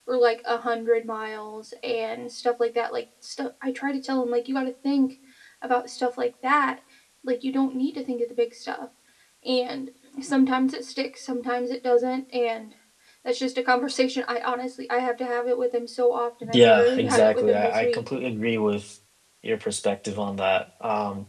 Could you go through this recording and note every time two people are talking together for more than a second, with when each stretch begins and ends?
16.5-18.0

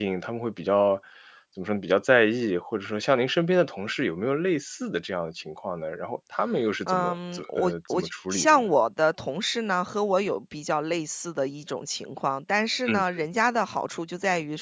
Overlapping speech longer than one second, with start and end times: 6.9-8.6

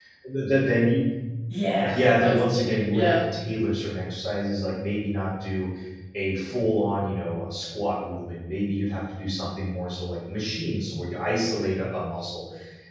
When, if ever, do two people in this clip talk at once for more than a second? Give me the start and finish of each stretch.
1.8-3.1

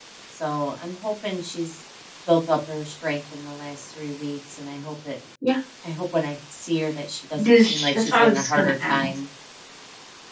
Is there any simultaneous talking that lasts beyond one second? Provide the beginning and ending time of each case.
7.4-9.1

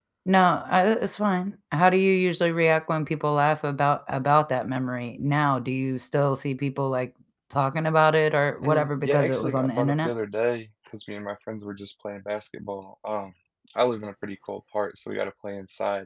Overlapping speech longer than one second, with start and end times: 8.6-10.1

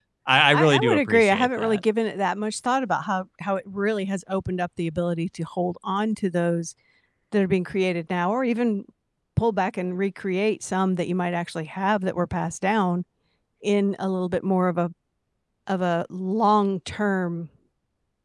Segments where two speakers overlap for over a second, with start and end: 0.5-1.8

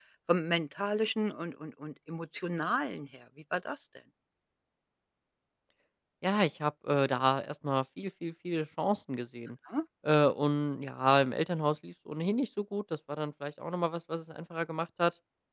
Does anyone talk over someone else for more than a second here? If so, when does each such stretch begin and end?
none

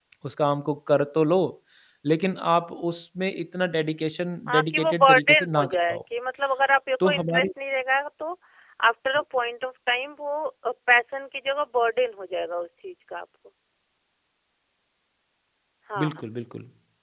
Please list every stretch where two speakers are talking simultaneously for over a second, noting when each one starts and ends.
4.5-6.0

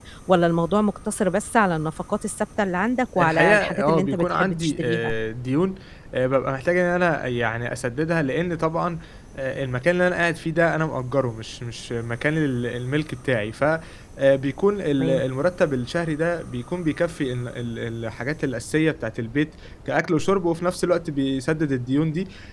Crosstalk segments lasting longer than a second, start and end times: 3.2-5.1

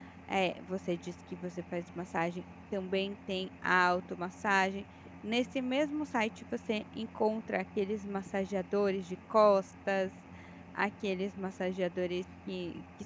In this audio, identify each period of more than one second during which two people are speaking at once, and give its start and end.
none

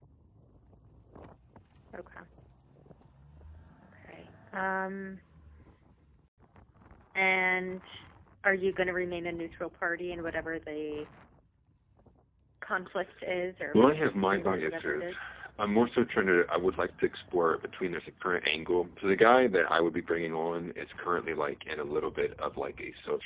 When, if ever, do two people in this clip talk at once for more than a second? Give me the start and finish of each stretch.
13.7-15.2

